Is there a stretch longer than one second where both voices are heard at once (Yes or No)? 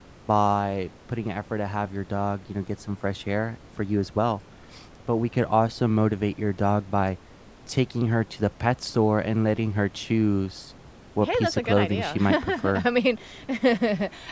Yes